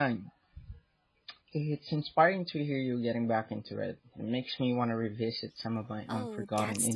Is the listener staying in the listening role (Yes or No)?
No